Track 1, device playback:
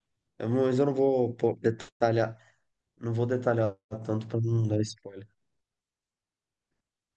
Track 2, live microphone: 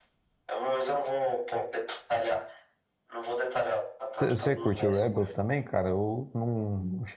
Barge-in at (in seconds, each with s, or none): 4.1 s